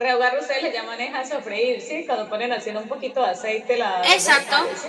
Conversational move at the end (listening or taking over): taking over